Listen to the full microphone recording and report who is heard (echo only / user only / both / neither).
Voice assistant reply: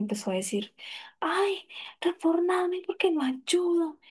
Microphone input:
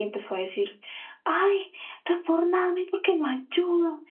echo only